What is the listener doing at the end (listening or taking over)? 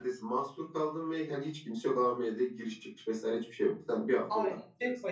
taking over